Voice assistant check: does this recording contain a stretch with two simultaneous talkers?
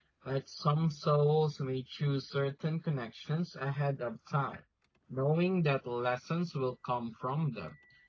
No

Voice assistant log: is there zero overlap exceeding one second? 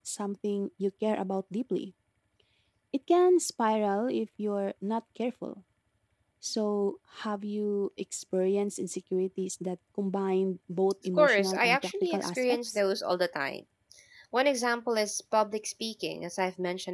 No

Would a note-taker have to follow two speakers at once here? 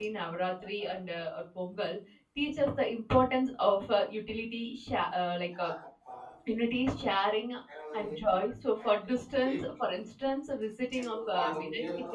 Yes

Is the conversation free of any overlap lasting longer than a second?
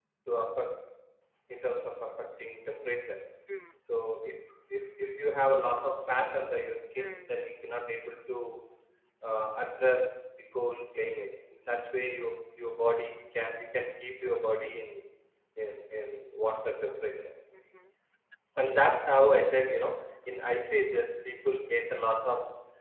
Yes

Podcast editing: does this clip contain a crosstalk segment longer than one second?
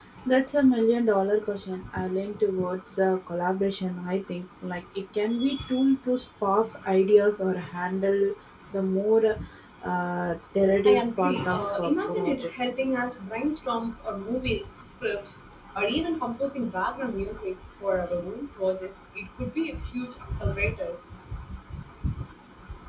Yes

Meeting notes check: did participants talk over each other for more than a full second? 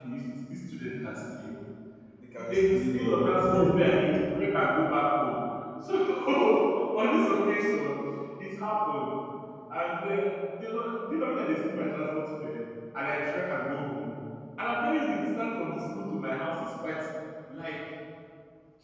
Yes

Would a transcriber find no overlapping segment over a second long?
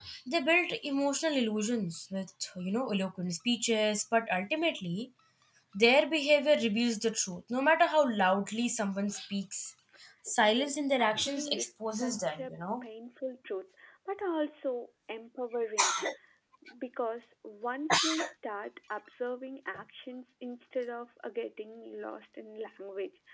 No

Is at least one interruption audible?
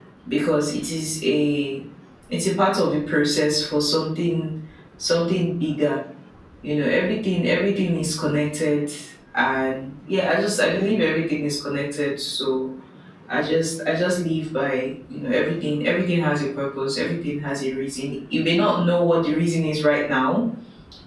No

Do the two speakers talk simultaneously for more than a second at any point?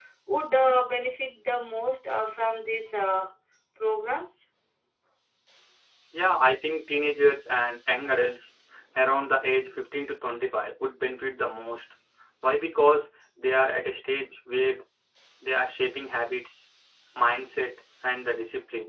No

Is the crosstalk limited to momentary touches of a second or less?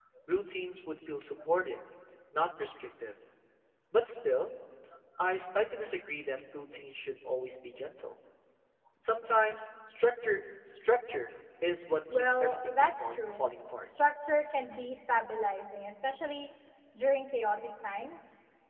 No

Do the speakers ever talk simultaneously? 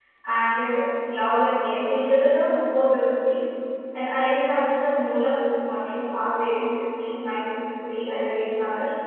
No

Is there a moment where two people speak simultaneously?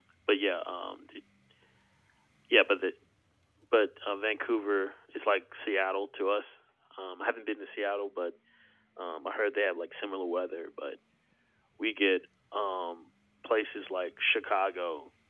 No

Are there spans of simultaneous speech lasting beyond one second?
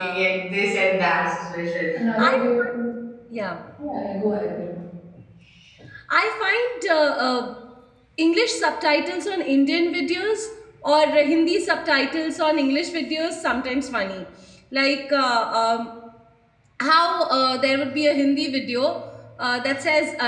No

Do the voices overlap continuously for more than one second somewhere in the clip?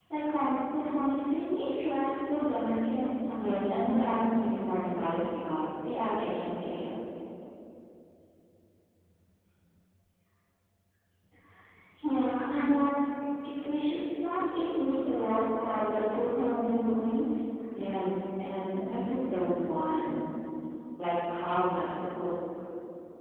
No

